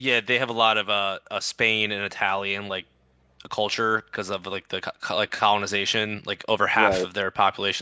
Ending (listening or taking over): listening